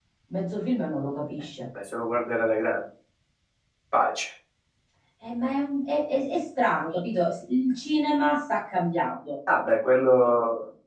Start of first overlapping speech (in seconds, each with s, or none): none